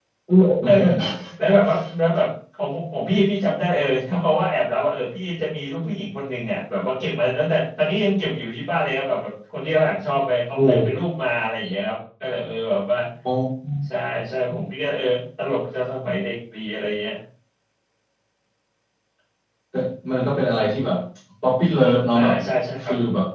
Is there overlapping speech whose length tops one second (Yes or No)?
No